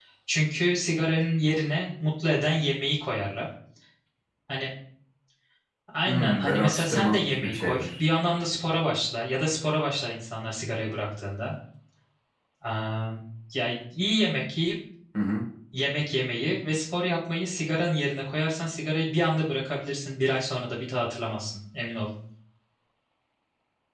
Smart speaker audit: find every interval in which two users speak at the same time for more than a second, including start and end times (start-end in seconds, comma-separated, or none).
6.1-8.0